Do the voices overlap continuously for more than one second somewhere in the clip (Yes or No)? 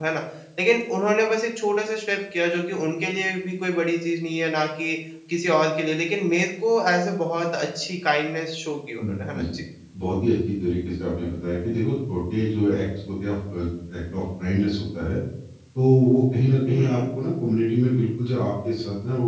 No